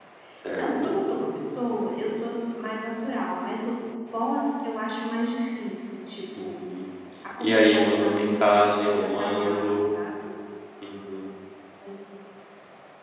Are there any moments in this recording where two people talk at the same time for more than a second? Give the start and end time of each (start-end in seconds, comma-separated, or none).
7.4-9.9